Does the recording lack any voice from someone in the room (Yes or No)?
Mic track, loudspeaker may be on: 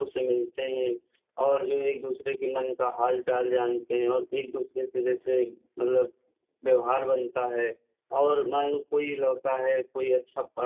Yes